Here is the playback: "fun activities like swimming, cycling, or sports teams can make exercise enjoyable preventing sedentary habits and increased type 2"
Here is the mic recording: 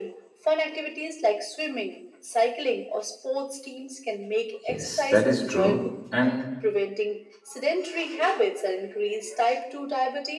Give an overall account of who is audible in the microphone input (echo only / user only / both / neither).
both